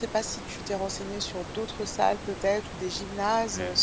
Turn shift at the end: No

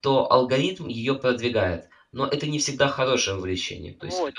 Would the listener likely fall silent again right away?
No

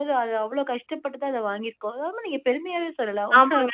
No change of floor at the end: No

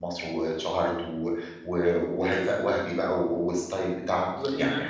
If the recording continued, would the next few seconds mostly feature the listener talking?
Yes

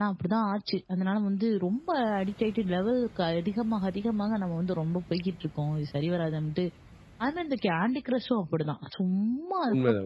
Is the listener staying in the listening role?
No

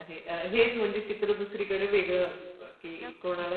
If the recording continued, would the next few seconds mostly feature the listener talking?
No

